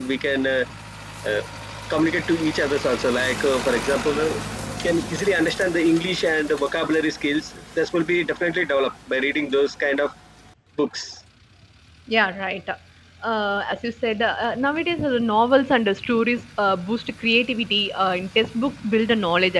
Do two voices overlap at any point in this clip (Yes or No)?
No